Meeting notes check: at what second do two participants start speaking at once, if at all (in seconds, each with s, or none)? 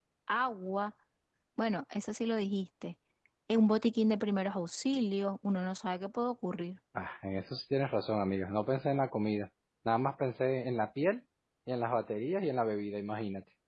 none